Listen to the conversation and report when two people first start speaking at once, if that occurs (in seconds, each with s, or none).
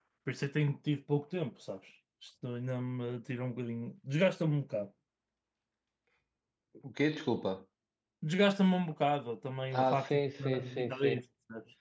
9.7 s